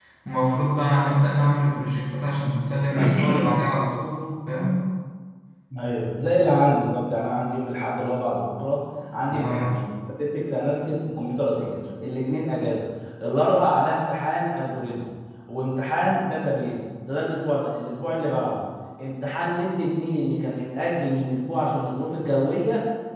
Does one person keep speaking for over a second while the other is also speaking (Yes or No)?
No